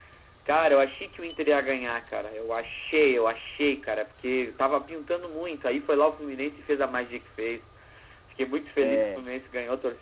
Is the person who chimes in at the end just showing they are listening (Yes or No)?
Yes